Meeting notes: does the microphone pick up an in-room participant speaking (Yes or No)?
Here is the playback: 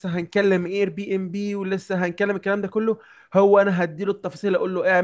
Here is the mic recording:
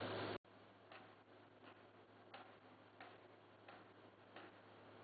No